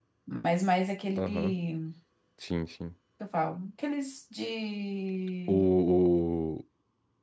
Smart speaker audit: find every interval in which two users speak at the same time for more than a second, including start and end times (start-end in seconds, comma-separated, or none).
none